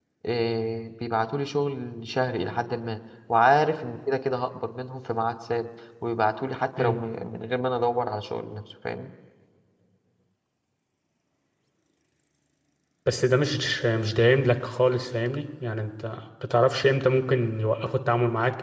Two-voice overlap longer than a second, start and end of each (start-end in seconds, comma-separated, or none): none